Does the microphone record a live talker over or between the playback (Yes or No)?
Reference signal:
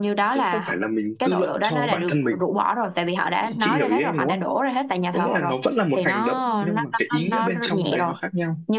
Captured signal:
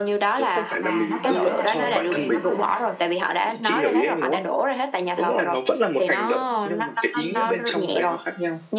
Yes